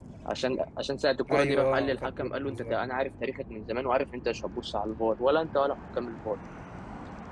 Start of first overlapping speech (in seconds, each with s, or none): 1.3 s